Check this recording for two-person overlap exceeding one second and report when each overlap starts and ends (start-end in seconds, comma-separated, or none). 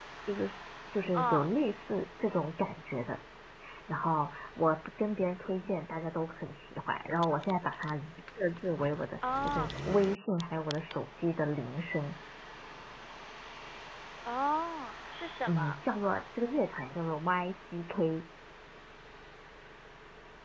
none